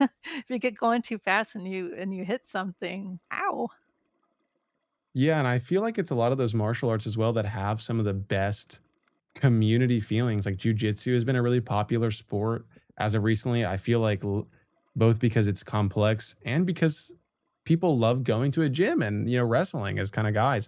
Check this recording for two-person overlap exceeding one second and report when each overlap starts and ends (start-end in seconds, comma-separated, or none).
none